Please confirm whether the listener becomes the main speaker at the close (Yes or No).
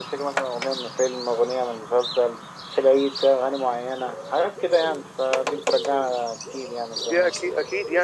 Yes